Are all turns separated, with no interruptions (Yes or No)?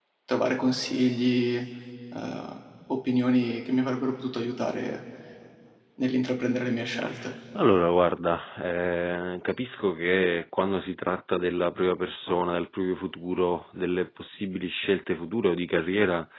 Yes